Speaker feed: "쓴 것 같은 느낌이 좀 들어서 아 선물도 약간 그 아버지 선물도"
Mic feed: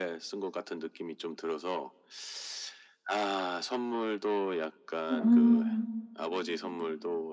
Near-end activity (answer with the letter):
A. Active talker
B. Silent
A